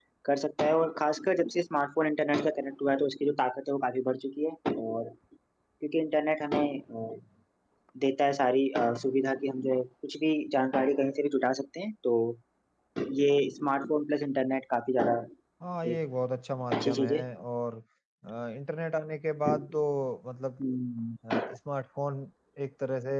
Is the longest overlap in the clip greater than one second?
No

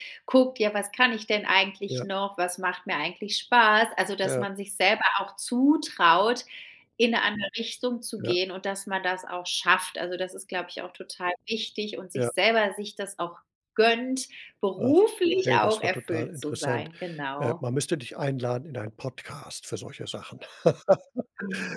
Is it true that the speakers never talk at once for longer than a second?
No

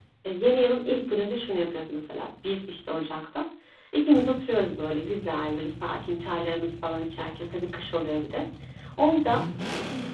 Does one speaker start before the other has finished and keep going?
No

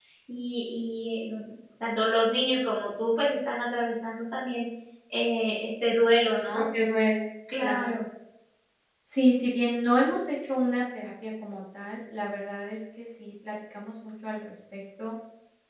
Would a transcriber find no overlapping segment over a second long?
Yes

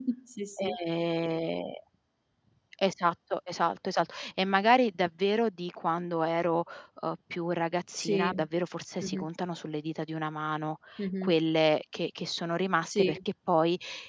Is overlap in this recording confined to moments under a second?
Yes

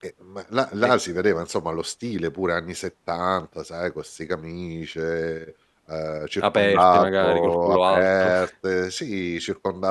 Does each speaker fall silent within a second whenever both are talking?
No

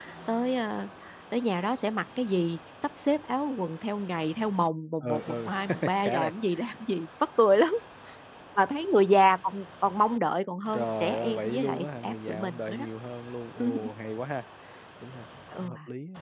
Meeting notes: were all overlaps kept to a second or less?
No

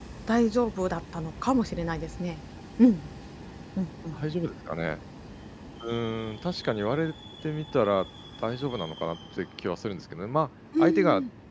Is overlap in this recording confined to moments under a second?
Yes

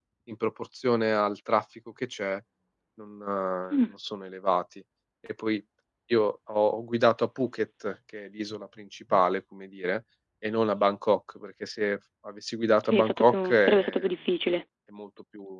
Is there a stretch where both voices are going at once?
Yes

